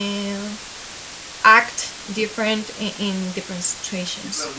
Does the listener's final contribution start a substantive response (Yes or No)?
No